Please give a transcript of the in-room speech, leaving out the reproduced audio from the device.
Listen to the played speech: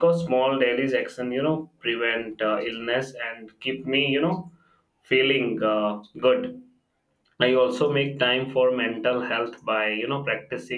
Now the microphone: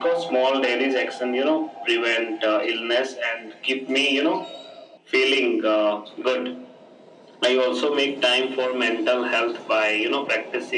none

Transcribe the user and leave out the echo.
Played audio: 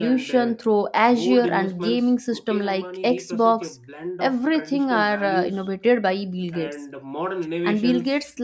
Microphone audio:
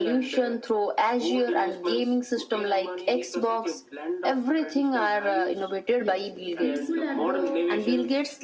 yes people at the

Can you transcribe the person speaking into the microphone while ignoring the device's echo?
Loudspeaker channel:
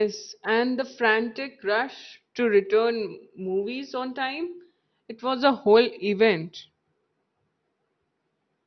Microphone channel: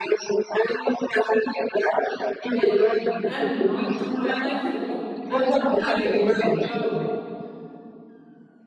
when I'm not on my phone, I'm more likely to pick up a book.

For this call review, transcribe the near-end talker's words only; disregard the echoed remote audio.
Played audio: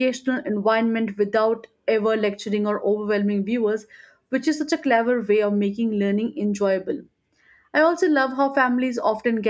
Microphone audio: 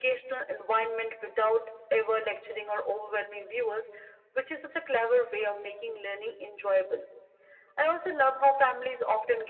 none

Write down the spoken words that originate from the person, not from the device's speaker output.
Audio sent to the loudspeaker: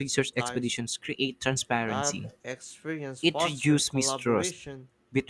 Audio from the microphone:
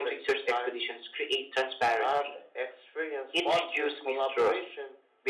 none

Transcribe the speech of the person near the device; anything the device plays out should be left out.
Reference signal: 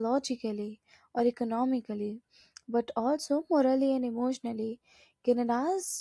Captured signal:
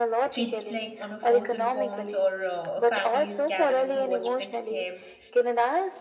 kids playing on a frozen ponds or uh, families gathering to watch big games

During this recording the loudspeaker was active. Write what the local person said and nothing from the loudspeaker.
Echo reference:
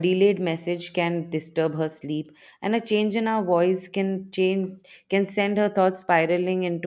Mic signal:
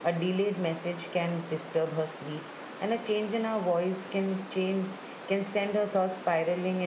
none

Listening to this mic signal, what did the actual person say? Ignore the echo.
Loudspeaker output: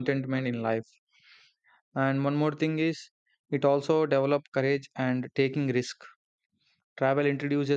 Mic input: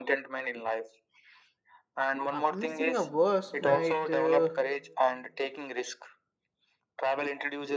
Uh, missing a verse might uh,

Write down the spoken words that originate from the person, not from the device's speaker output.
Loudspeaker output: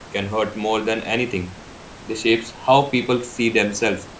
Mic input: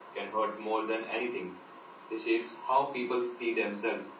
none

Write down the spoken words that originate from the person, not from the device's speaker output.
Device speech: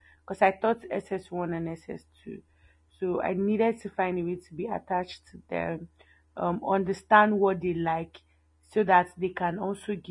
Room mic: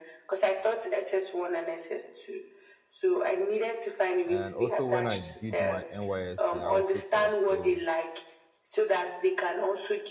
And also when I did my NYSC, I also taught. So

